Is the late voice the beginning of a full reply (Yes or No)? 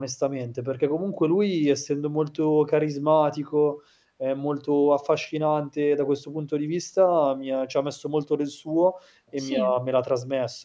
No